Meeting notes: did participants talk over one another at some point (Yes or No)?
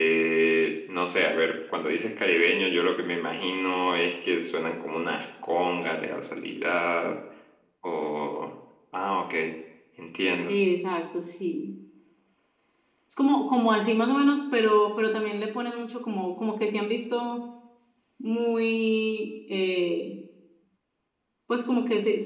No